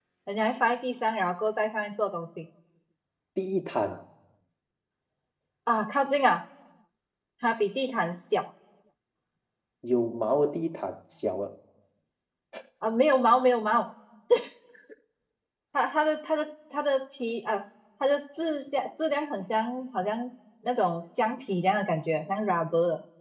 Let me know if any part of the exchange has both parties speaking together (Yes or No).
No